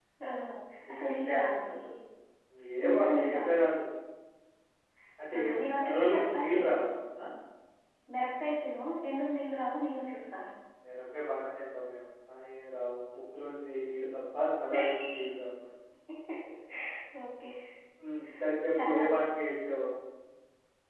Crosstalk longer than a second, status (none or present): present